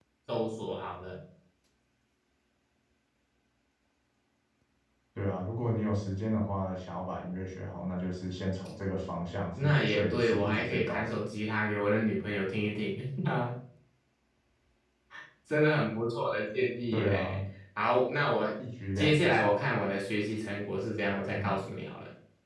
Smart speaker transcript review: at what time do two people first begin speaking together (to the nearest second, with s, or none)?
10 s